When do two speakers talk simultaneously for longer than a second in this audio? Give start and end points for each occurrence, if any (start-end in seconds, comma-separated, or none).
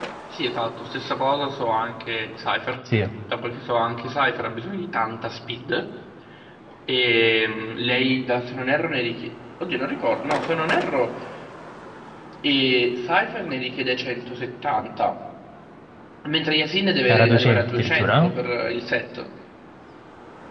17.1-18.3